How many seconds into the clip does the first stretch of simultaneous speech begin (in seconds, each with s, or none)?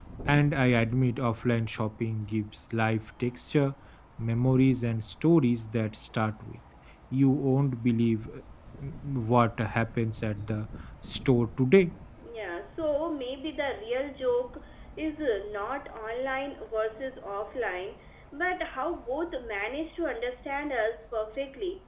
none